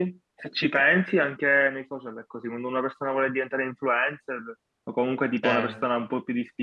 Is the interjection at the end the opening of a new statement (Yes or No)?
No